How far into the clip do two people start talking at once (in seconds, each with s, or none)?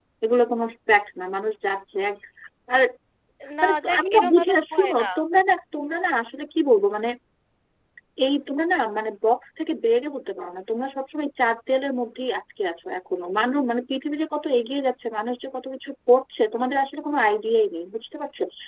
3.6 s